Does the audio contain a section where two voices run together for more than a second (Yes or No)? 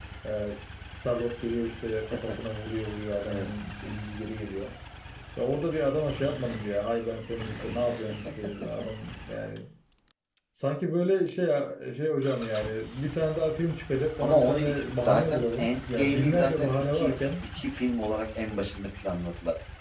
Yes